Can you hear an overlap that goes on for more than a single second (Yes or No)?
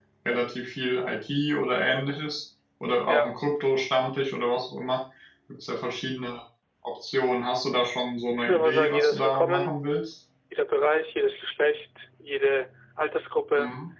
Yes